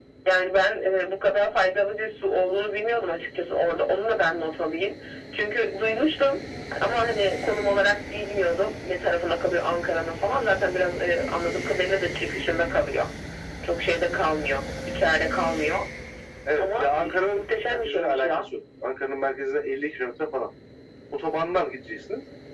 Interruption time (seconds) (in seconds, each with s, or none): 16.6 s